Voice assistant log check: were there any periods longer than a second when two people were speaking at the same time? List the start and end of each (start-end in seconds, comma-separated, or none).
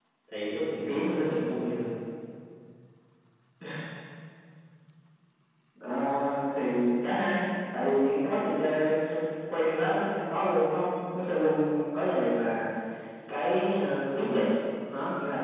none